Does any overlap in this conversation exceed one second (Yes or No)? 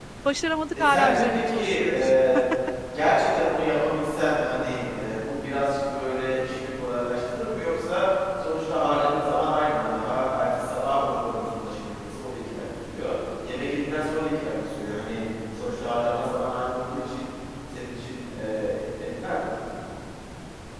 Yes